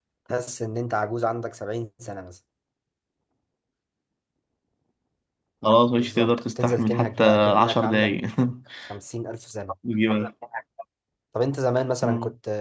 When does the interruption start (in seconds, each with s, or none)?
6.0 s